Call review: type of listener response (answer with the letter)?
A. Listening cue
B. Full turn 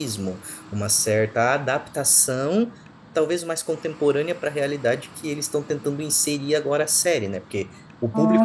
A